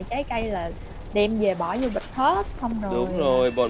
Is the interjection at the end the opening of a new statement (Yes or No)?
Yes